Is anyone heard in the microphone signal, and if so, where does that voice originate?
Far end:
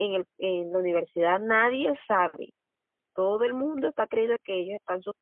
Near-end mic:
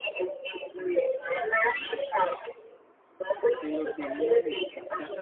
both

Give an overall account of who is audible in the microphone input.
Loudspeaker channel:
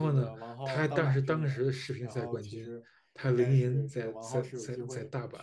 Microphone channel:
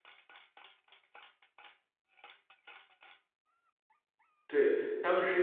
user only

